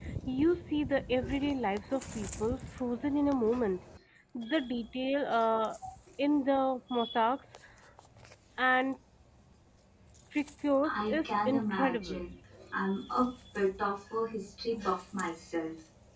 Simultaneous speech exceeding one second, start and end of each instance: 10.8-12.2

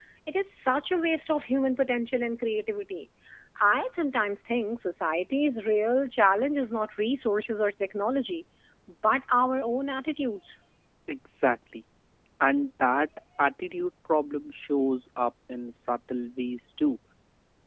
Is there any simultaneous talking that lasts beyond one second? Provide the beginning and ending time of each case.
none

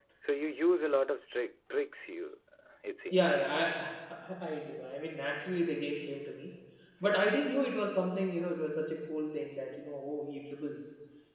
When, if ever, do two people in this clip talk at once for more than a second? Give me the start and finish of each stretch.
none

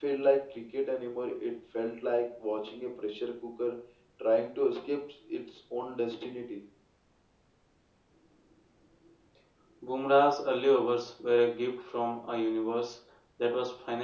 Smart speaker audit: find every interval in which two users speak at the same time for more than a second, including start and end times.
none

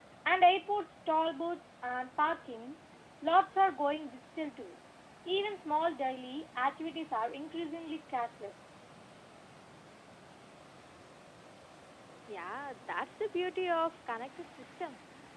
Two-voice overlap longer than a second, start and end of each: none

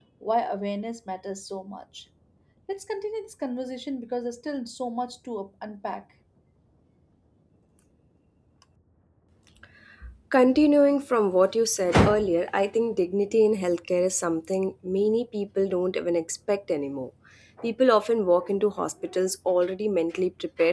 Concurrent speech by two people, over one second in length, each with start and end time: none

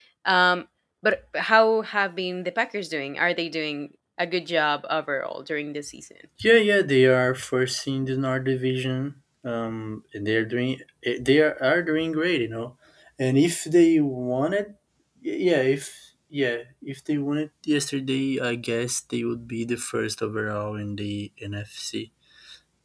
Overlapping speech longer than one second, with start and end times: none

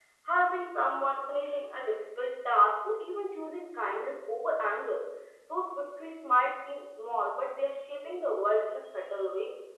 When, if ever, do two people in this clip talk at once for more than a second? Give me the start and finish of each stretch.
none

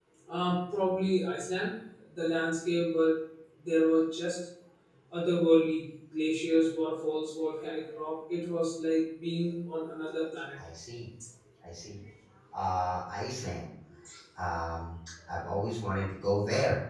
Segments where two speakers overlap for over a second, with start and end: none

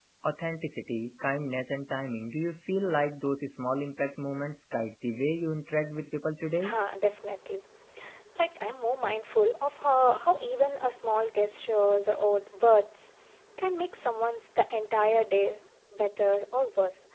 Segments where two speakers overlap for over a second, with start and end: none

